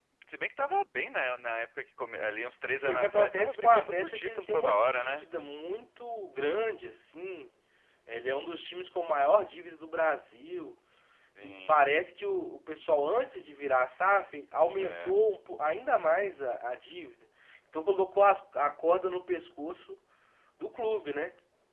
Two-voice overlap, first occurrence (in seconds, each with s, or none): 2.7 s